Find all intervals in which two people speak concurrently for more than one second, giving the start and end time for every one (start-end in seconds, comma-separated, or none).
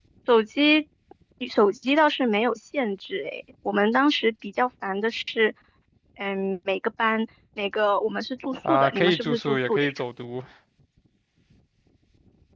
8.7-9.9